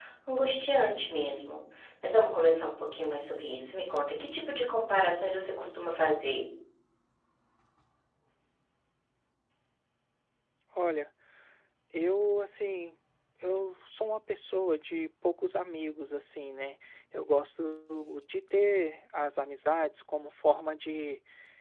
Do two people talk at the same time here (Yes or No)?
No